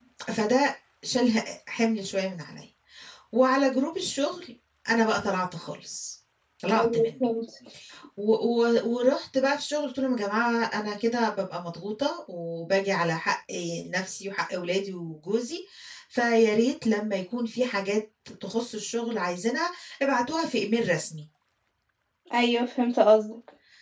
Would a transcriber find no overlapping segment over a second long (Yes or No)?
Yes